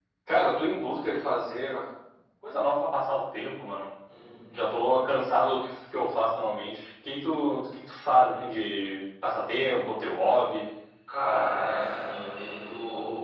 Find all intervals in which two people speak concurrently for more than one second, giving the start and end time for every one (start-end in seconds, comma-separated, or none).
none